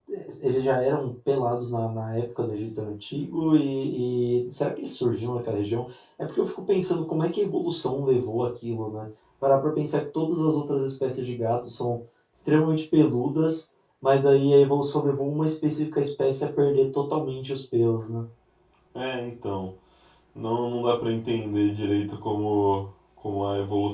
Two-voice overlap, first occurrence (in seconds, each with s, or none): none